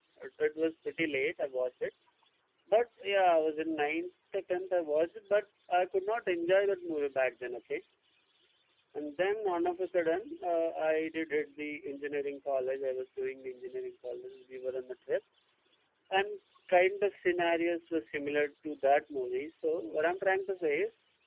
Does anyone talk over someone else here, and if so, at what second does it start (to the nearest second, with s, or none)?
none